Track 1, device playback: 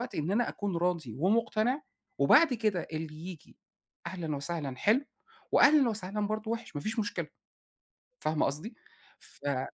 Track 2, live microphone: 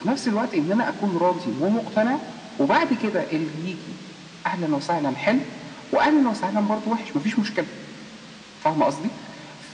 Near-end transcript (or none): none